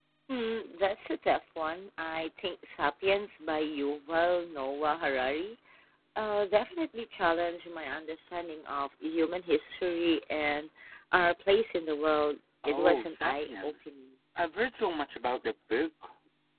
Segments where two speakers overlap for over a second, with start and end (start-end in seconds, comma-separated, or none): 12.7-13.9